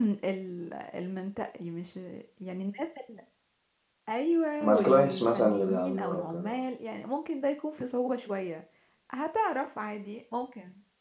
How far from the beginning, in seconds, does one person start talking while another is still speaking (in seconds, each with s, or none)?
4.6 s